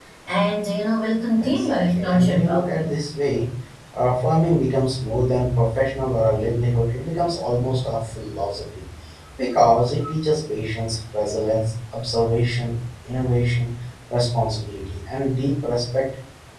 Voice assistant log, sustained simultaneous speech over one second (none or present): present